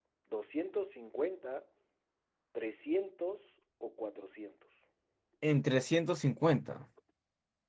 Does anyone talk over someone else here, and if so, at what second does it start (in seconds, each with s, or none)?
none